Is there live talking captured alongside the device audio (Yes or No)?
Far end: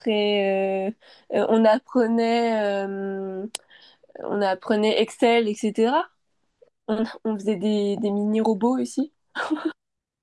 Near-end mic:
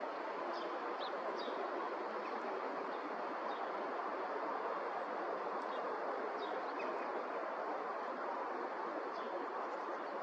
No